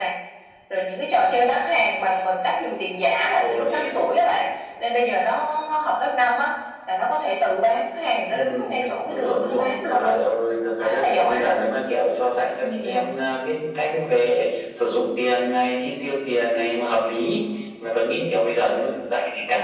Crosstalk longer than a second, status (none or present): present